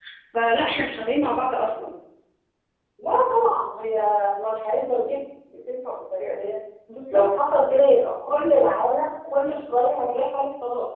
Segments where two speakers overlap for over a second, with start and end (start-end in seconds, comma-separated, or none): none